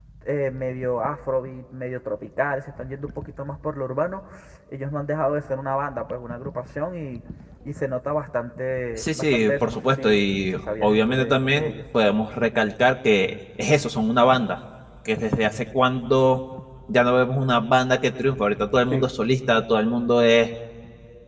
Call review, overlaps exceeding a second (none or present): present